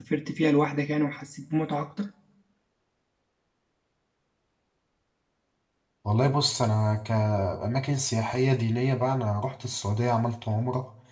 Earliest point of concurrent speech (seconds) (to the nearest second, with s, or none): none